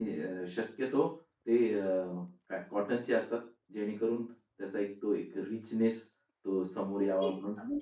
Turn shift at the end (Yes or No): Yes